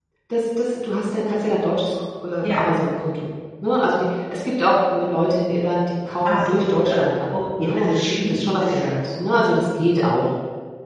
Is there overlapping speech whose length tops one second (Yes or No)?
Yes